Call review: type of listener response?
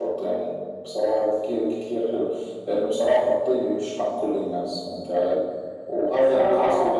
listening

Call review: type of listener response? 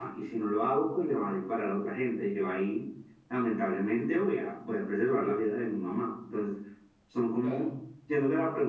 listening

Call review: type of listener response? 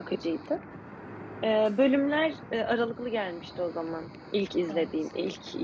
listening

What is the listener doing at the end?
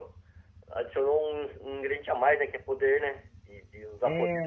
taking over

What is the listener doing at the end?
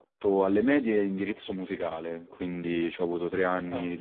listening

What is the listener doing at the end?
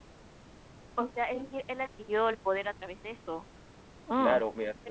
taking over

